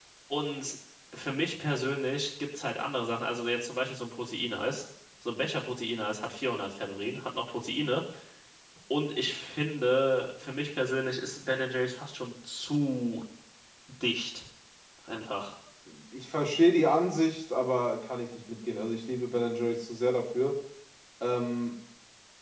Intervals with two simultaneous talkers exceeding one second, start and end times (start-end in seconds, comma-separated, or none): none